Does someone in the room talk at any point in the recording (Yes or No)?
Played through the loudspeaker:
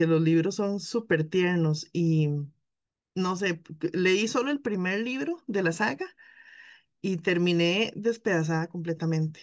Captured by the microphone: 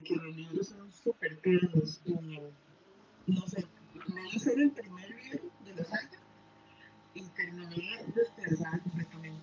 No